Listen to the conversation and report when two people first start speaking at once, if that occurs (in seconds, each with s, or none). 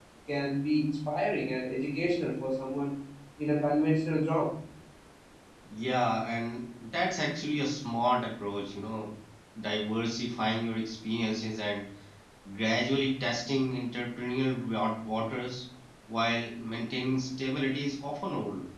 none